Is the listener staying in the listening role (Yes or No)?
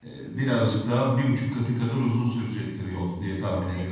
No